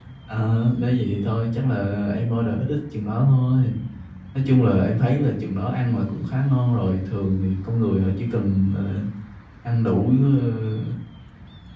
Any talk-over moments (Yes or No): No